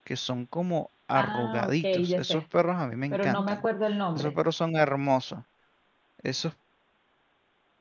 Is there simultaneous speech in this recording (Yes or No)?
Yes